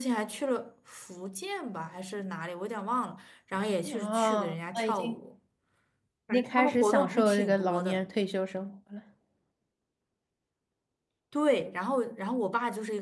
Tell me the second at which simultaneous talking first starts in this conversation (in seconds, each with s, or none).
3.9 s